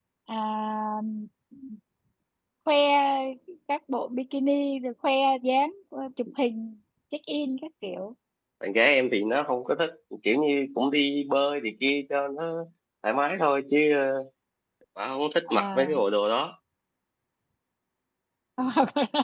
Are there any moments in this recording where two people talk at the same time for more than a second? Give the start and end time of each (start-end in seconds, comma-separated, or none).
none